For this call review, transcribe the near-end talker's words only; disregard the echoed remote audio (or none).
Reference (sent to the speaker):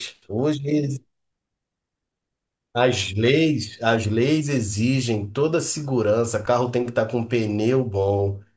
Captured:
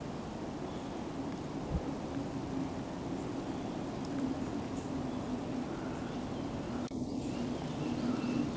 none